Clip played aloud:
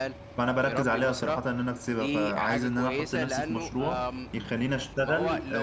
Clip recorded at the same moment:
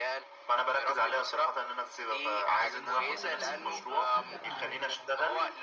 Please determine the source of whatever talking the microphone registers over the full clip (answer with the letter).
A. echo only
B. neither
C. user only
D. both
D